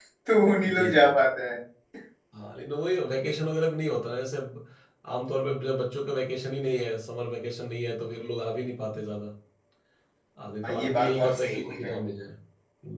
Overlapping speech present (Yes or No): Yes